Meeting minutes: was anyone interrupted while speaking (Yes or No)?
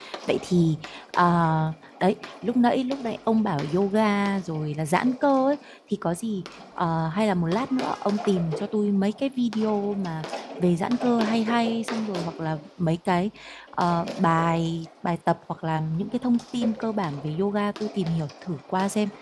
No